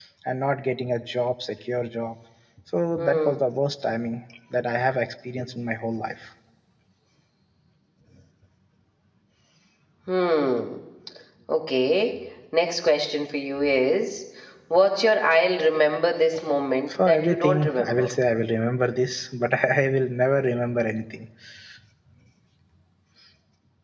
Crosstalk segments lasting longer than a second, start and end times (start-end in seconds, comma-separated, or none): 16.9-18.1